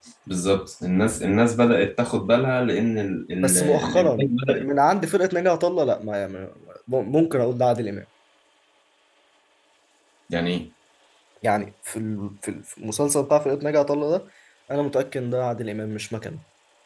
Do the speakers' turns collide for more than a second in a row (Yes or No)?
Yes